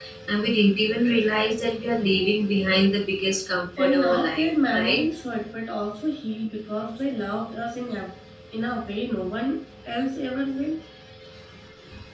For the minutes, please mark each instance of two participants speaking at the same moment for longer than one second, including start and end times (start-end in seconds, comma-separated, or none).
3.8-5.0